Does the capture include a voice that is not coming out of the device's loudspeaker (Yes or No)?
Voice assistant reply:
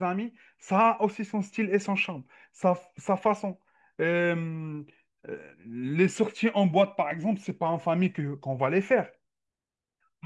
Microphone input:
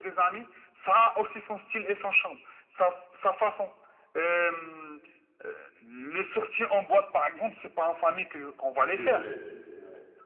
Yes